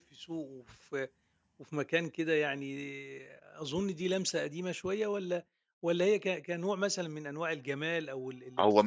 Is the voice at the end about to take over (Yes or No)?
Yes